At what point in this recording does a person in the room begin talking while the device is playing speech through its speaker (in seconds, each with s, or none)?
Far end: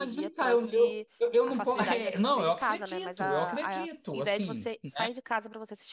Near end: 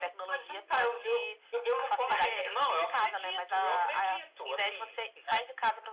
none